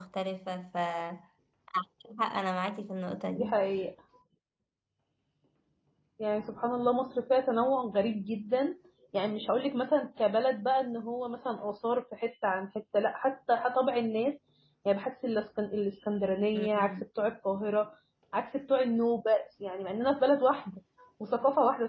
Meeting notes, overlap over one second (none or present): none